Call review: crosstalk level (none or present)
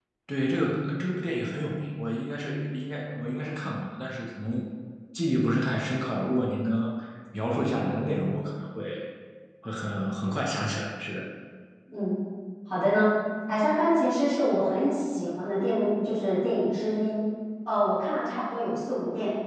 none